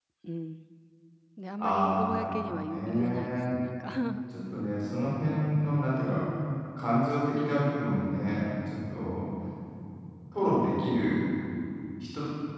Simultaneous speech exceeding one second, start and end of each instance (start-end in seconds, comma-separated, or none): 1.6-3.5